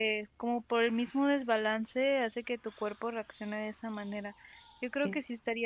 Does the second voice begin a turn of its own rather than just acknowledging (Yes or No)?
No